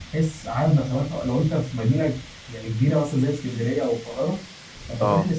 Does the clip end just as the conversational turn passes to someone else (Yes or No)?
No